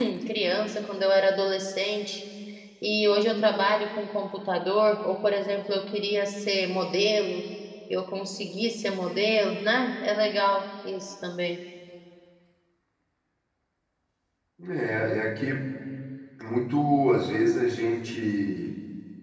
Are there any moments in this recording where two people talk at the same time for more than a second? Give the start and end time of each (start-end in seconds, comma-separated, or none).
none